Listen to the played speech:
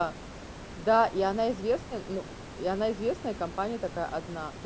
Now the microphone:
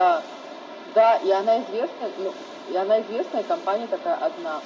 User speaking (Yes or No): No